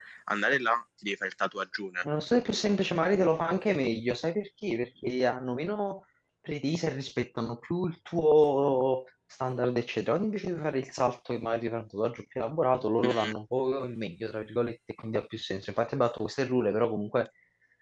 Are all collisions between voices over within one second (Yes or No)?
Yes